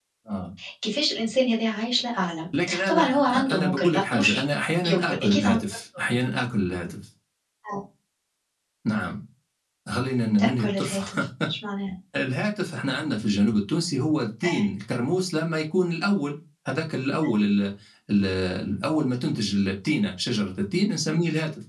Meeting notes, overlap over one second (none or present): present